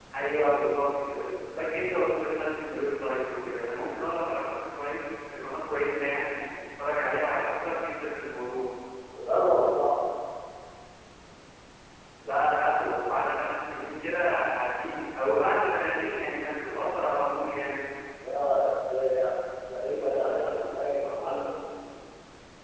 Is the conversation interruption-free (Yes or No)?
Yes